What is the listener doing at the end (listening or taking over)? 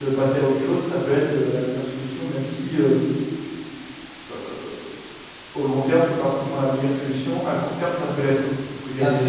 listening